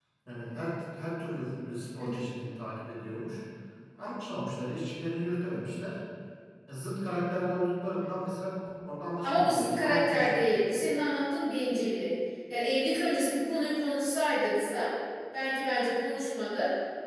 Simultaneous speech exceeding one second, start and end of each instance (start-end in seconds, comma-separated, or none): 9.2-10.5